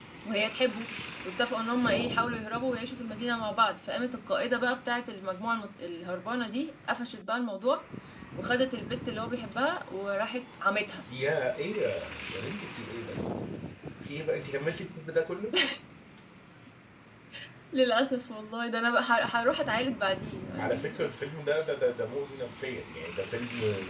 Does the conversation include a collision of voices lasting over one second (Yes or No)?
No